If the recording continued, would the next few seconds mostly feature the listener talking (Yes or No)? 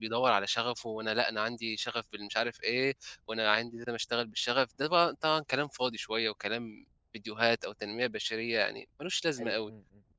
Yes